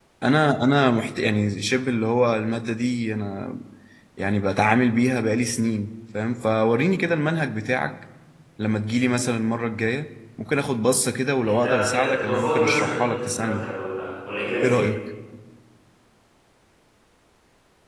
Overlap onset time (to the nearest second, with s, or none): 11 s